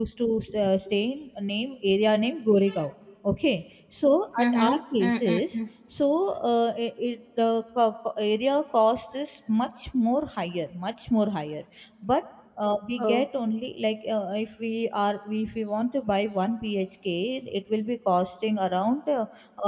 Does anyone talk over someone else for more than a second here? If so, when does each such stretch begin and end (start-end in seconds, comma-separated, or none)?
4.4-5.6